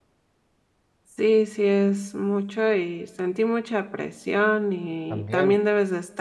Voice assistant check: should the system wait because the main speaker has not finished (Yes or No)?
Yes